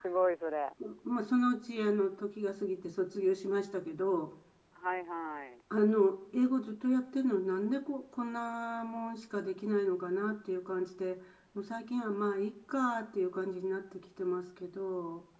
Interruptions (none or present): none